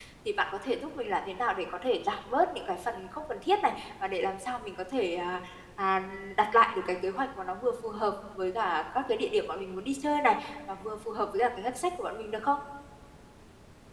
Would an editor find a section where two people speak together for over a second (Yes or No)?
No